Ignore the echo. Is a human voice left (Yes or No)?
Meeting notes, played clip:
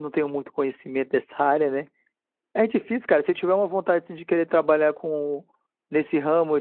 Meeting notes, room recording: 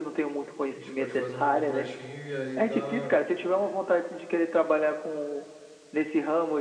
Yes